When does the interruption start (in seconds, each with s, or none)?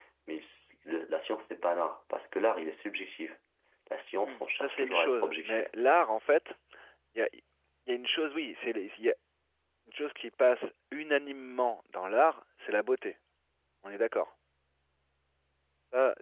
4.2 s